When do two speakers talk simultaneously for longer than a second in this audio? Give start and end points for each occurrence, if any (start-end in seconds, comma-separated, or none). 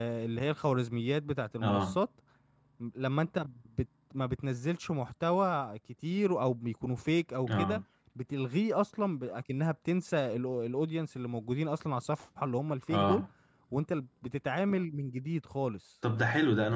none